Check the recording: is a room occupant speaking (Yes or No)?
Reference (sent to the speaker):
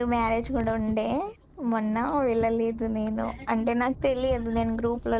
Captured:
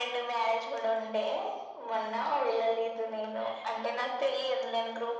No